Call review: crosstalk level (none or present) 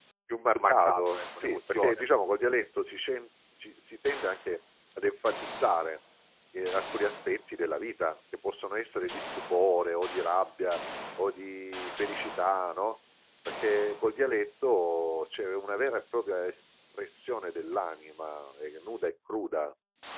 present